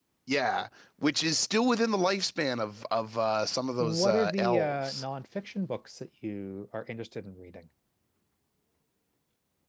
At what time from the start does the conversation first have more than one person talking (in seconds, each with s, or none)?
3.8 s